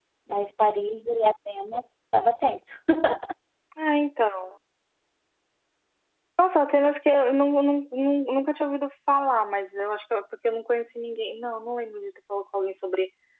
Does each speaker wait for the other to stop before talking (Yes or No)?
Yes